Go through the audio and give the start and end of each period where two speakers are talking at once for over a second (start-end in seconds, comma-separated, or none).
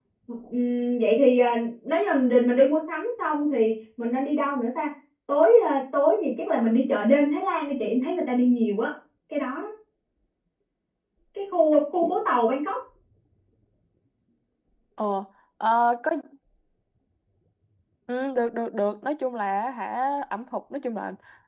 none